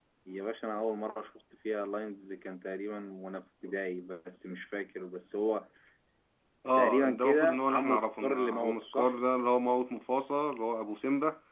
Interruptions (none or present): present